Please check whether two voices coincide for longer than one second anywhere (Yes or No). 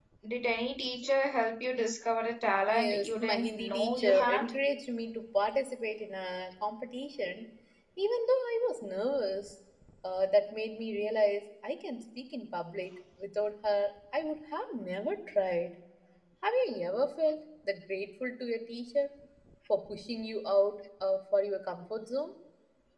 Yes